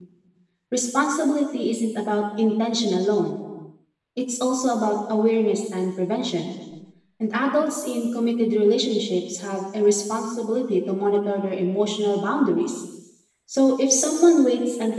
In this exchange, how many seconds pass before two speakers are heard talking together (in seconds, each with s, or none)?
none